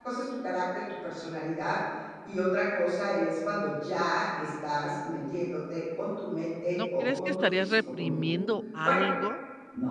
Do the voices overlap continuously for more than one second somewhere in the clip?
Yes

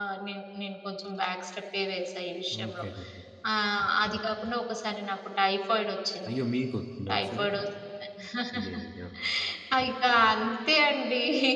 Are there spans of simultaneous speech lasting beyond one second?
No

